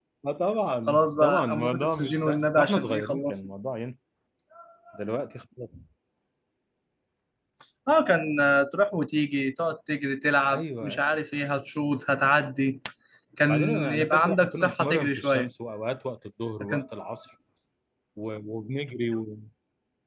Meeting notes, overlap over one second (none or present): present